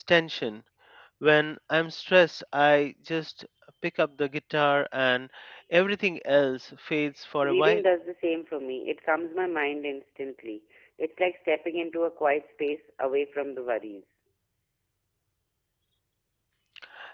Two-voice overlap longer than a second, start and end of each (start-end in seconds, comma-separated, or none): none